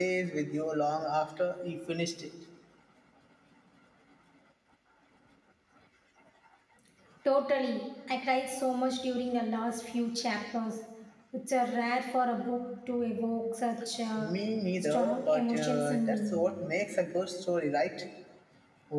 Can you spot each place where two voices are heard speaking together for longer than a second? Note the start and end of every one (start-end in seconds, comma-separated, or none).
14.8-16.2